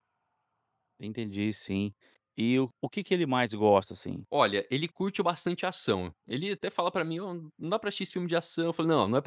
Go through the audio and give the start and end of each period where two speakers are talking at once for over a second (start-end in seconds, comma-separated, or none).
none